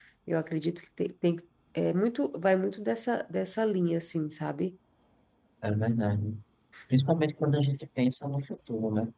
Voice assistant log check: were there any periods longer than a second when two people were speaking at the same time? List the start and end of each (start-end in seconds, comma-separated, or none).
none